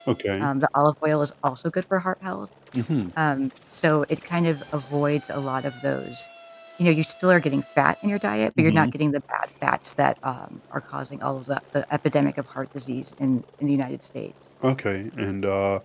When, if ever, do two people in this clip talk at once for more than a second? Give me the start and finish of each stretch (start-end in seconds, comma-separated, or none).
none